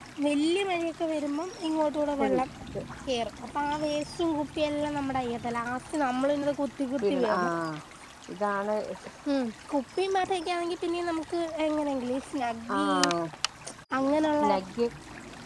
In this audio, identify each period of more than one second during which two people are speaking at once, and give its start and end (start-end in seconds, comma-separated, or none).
none